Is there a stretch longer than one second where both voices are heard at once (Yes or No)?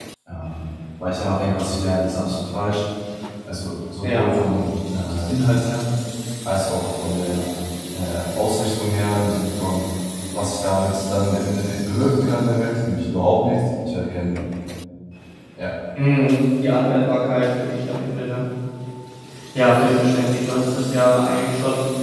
No